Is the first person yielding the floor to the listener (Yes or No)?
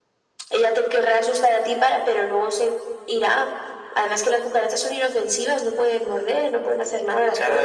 Yes